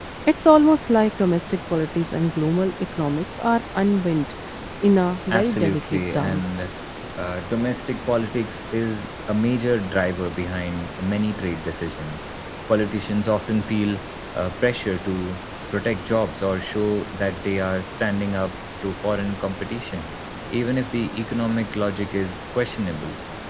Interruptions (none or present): present